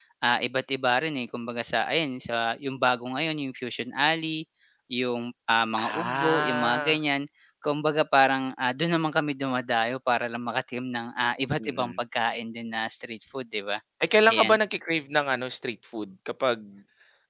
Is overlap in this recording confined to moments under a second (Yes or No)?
No